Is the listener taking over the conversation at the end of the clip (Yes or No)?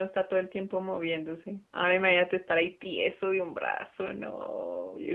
Yes